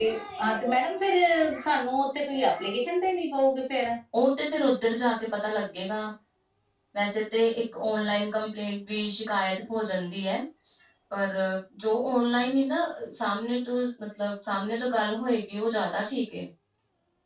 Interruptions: none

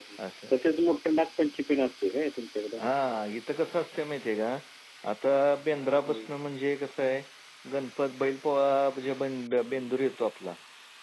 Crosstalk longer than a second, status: none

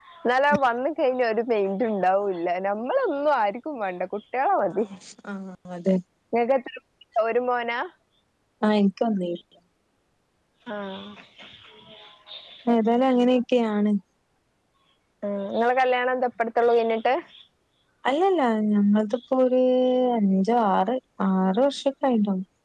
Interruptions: none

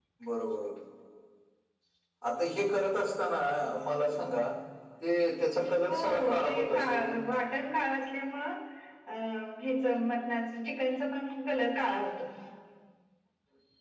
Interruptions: present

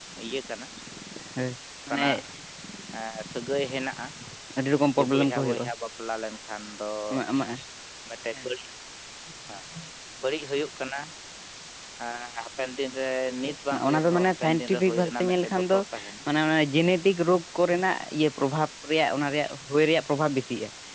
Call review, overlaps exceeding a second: present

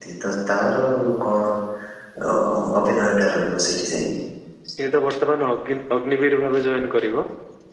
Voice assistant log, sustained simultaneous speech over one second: none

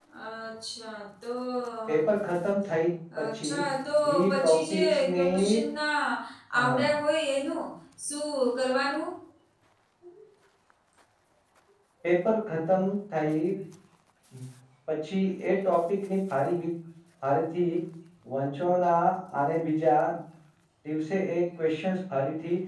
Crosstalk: present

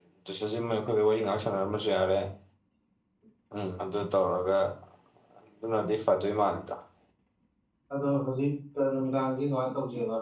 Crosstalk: none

